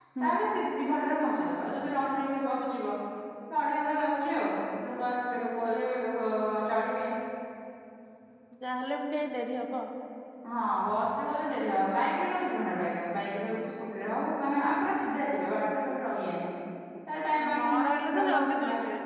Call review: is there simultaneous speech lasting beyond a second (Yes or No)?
Yes